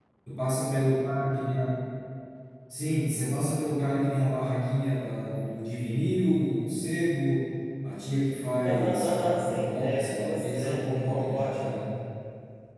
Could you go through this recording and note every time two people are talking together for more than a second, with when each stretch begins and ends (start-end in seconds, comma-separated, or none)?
8.7-11.7